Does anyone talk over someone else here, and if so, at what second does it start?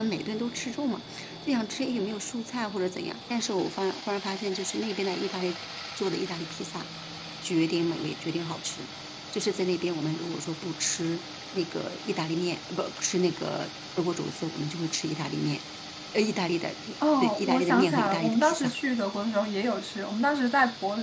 17.2 s

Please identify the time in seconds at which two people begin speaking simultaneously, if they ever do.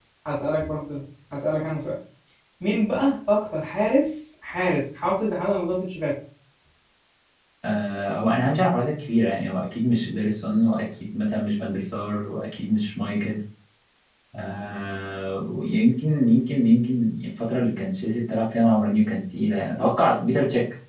none

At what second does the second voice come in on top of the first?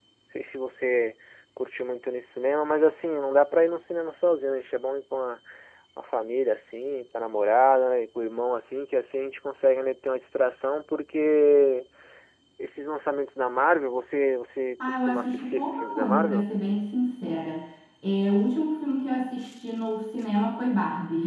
14.8 s

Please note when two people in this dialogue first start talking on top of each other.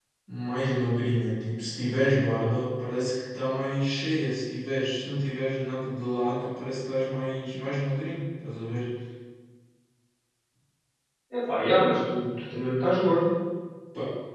none

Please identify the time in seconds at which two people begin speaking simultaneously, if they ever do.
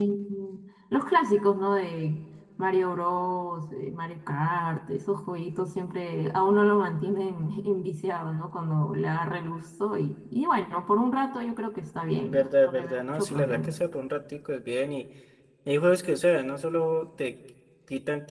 12.2 s

